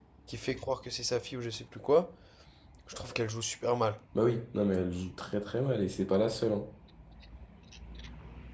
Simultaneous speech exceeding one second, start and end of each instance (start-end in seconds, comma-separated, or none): none